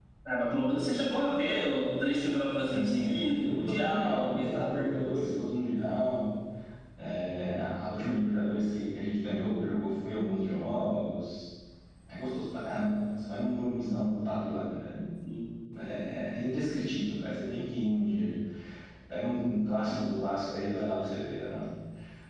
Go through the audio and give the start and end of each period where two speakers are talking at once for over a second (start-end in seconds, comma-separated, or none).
2.7-5.3